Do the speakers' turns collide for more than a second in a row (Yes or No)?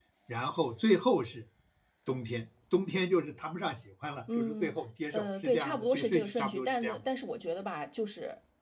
Yes